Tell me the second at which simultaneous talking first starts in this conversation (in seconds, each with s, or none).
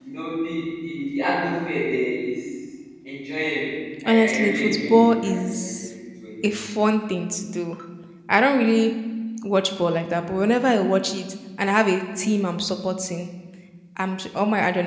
4.0 s